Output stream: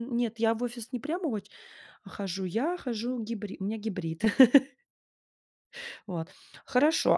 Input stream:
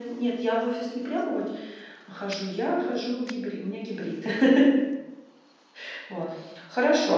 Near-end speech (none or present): none